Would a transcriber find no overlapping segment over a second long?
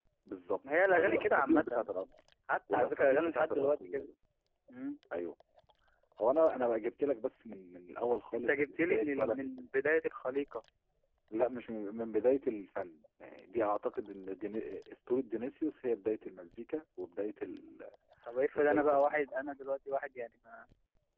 No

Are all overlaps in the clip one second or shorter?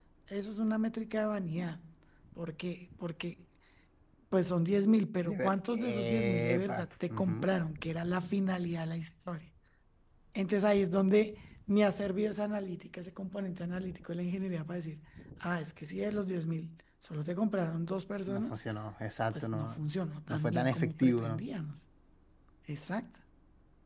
No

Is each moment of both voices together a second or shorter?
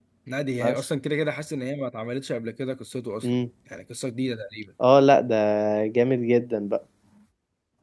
Yes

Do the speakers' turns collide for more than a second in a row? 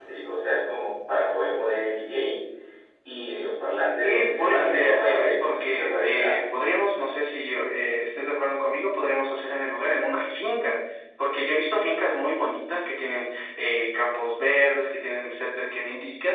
Yes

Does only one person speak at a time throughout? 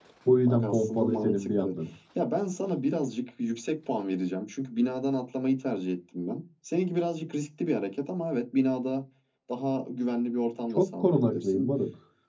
No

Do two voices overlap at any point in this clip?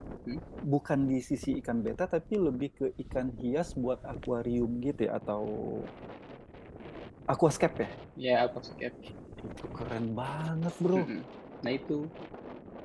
No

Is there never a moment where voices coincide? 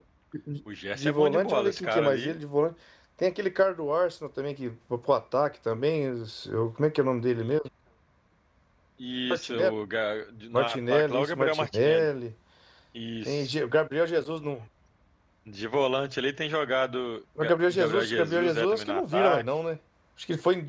No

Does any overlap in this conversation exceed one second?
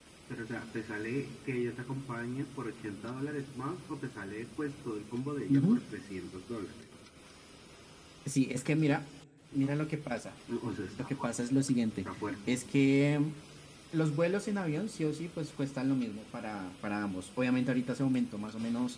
No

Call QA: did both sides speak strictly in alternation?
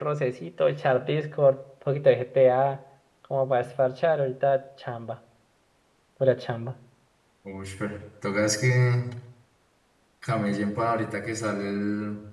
Yes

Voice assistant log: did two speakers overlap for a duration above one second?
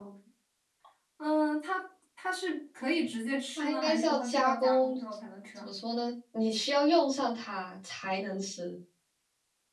Yes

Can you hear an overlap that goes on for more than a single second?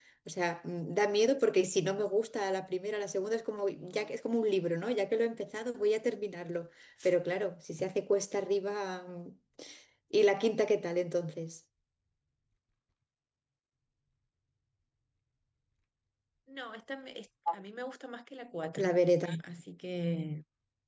No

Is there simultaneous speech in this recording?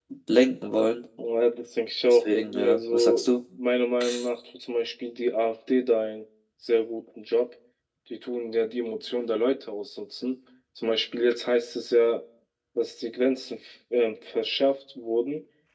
Yes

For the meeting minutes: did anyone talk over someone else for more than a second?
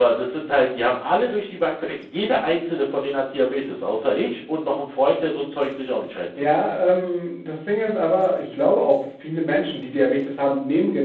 No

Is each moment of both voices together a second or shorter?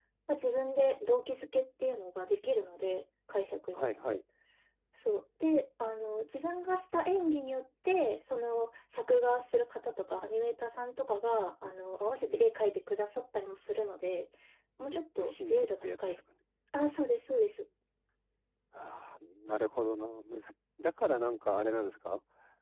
No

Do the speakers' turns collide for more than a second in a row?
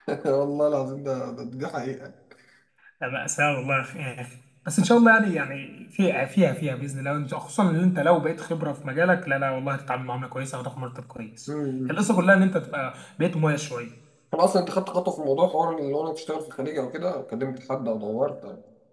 No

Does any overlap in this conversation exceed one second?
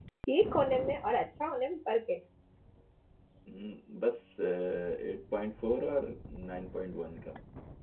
No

